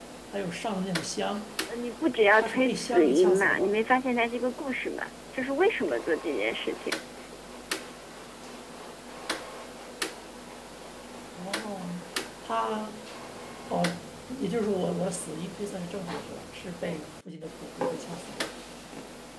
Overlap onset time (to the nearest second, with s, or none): 2 s